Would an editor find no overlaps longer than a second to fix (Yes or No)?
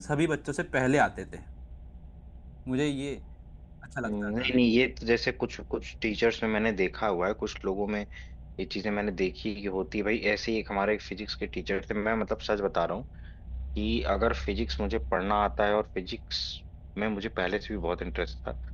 Yes